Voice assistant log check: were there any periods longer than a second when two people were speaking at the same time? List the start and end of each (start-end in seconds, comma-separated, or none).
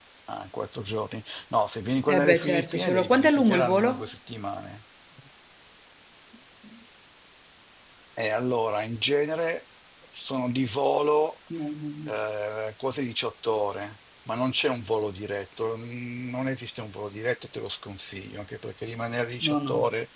2.1-4.0